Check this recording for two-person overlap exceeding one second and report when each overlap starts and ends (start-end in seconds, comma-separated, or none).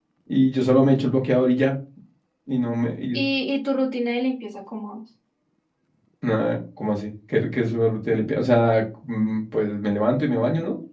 none